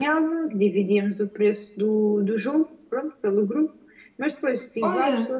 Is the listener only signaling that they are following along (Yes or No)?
Yes